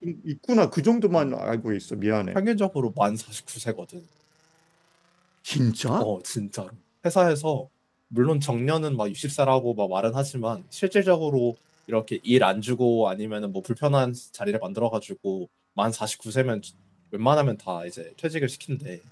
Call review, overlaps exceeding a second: none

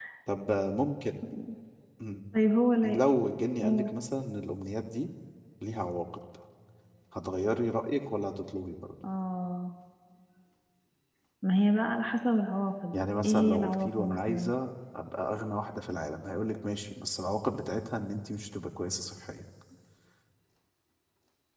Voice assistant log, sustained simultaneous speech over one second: present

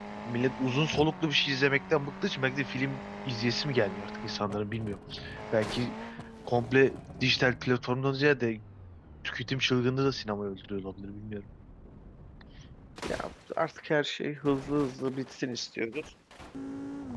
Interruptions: none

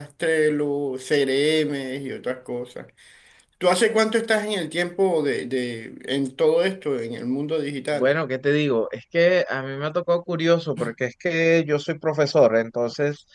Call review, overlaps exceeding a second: none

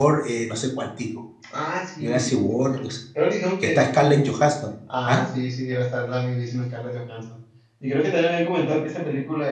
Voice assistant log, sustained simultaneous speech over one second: none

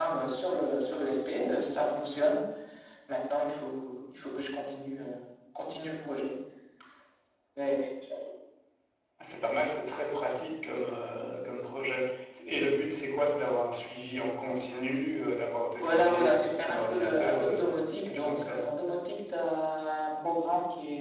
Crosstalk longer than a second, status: present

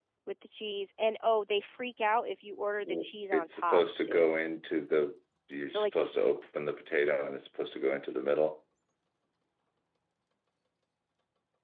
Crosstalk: present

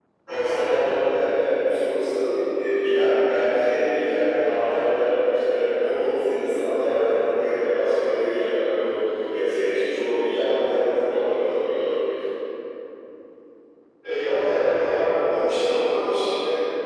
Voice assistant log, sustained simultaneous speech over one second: none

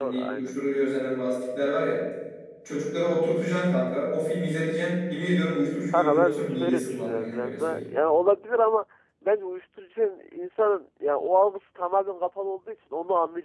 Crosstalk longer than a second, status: present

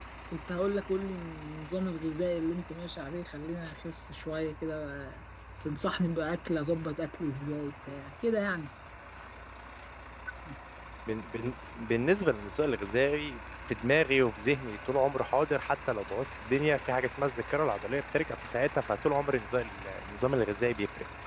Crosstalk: none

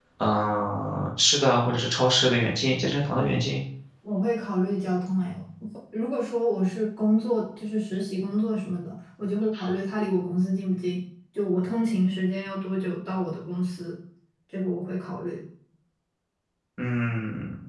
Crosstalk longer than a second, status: none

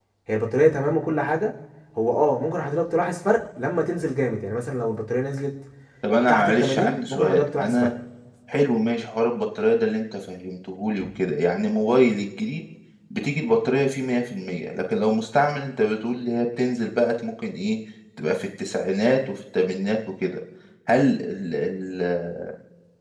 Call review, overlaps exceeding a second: present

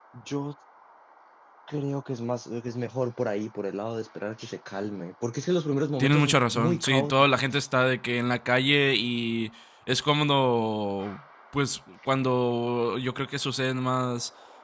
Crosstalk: present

